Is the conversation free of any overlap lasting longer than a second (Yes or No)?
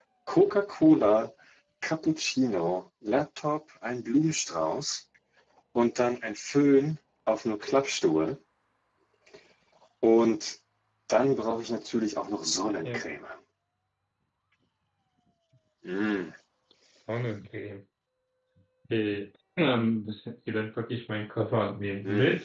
Yes